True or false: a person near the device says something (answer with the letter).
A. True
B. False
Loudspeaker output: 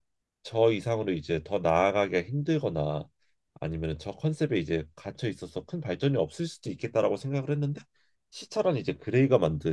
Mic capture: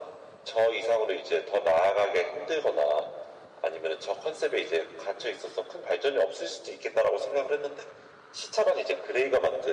B